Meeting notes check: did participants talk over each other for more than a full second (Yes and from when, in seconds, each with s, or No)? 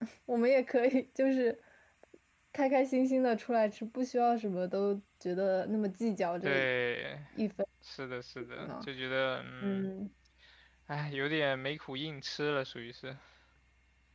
No